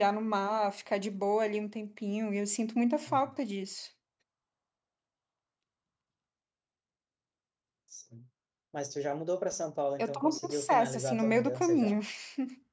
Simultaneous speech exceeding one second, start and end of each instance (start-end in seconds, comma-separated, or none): 10.0-12.0